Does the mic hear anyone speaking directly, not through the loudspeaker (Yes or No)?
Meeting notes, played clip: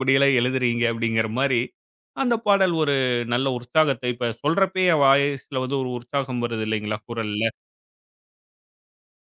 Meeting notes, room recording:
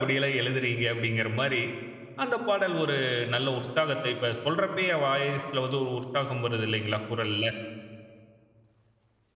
No